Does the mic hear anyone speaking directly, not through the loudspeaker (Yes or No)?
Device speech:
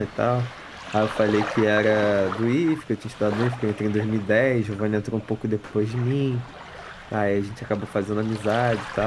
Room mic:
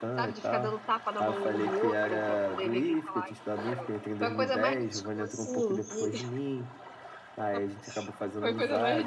Yes